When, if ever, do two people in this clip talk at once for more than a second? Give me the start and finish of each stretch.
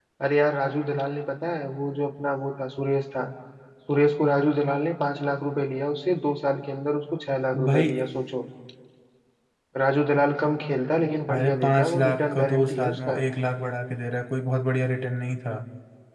11.3-13.2

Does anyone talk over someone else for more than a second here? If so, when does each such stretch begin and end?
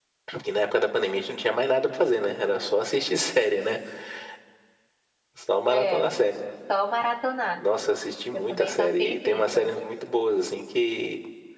8.3-9.7

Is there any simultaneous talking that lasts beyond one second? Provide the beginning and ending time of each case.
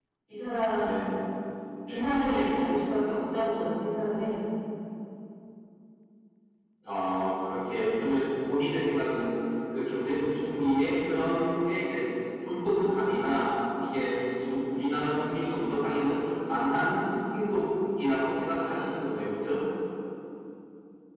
none

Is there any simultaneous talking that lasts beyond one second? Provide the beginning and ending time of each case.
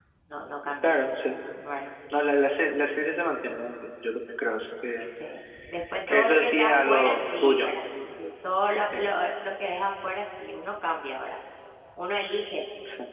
6.1-7.7

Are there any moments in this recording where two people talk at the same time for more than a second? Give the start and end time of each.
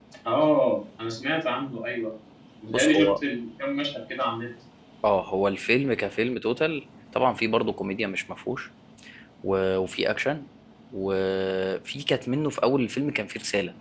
none

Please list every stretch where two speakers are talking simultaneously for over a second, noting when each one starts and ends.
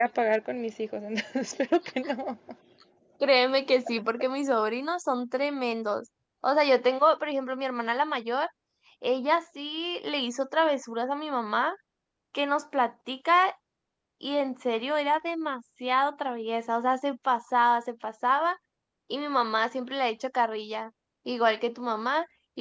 none

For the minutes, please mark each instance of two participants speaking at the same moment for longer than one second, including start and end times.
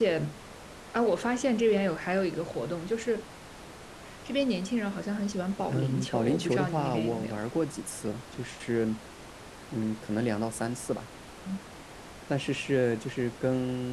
5.7-7.4

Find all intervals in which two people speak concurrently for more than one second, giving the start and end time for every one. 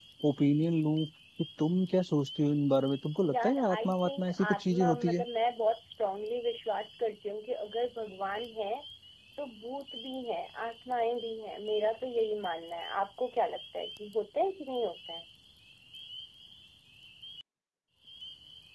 3.3-5.2

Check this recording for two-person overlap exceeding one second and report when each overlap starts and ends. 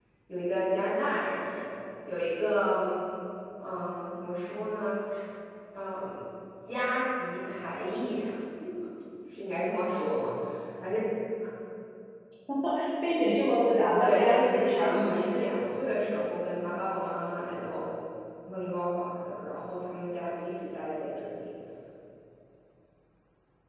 13.9-15.3

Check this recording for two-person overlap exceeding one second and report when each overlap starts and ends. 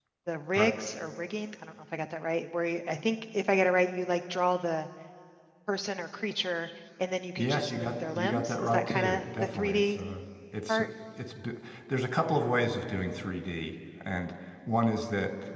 7.4-10.0

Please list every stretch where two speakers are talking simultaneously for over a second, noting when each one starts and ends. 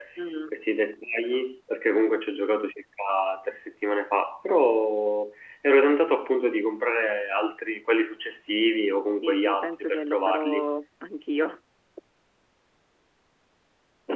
9.2-10.6

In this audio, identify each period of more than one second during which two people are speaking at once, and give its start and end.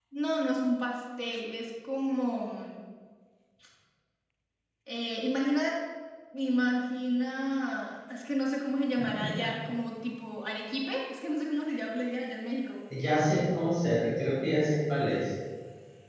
none

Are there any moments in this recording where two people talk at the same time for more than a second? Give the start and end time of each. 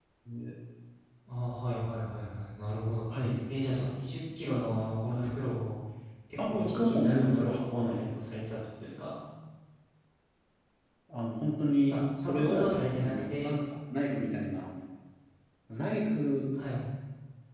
6.5-8.1, 11.9-13.5

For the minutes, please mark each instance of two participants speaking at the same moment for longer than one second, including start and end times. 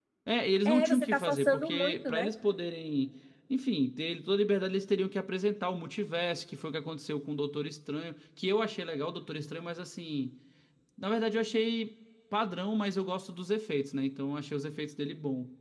0.7-2.3

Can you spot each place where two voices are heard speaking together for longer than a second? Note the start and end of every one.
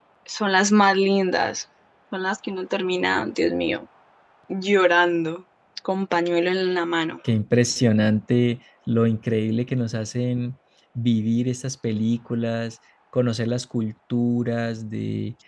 none

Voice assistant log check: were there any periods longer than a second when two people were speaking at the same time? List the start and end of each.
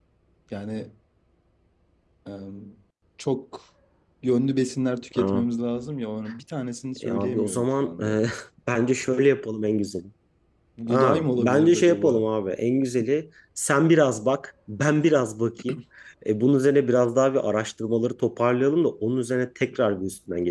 7.0-8.2, 10.9-12.2

